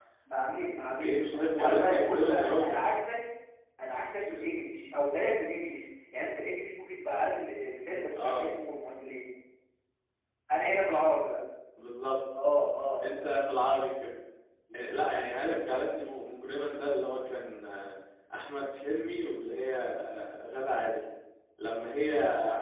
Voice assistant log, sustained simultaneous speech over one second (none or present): present